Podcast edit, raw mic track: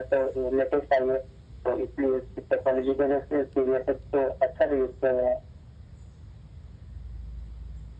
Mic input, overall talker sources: echo only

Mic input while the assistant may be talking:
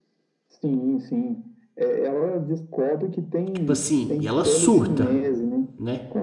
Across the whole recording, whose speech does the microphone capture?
both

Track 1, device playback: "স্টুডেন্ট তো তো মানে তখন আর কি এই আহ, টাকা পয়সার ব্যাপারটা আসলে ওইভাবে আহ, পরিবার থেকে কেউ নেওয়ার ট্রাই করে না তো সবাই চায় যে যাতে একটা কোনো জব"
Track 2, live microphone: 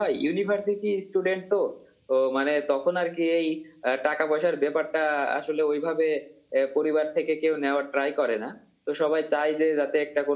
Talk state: echo only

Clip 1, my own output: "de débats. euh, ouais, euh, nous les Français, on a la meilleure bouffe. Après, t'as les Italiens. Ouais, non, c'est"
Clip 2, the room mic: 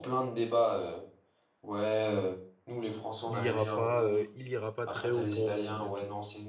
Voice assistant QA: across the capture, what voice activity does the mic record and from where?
both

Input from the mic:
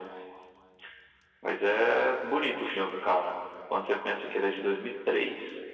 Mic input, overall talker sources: echo only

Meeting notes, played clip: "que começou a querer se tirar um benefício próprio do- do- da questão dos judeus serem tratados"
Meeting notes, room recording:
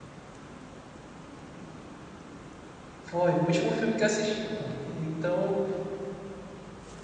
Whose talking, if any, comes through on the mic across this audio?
user only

